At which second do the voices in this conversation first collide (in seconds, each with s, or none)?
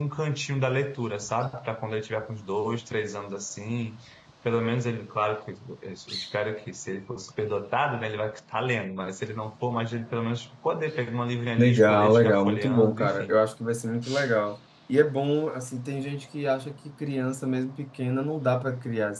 11.6 s